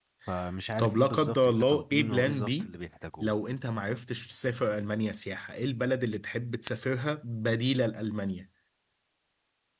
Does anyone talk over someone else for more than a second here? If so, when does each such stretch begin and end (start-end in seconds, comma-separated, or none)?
0.8-2.7